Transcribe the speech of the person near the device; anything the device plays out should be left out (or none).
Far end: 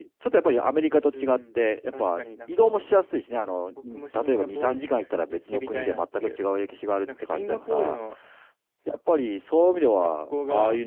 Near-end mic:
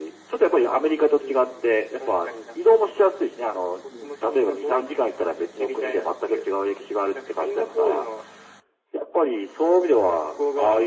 none